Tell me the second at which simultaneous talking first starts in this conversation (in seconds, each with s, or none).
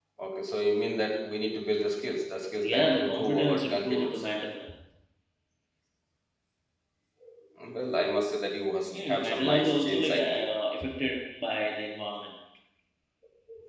2.6 s